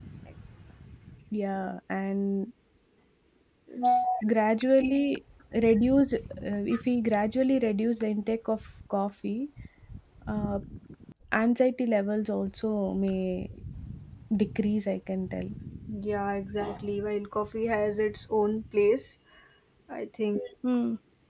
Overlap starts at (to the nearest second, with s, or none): none